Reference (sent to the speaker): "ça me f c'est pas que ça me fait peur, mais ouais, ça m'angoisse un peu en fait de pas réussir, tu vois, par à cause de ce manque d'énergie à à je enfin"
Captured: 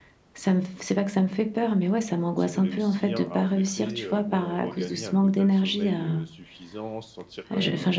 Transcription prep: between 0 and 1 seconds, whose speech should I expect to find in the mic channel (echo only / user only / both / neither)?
echo only